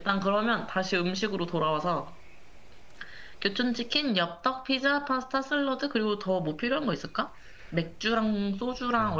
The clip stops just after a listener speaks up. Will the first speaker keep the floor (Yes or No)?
No